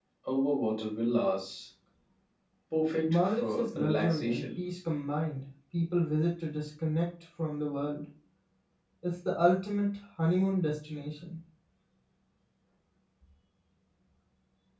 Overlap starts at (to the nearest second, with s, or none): 3 s